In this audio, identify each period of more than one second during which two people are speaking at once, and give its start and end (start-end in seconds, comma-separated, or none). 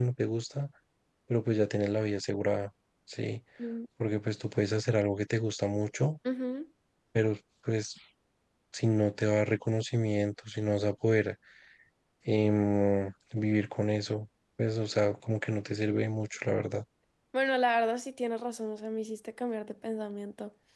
none